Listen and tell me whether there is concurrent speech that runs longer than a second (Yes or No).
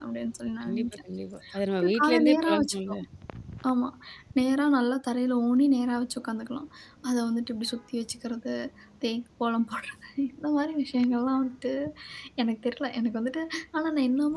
Yes